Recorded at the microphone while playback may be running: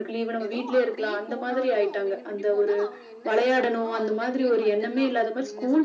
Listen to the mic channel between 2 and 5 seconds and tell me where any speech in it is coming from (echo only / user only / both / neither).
both